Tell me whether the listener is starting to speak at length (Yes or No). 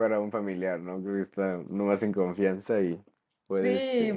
Yes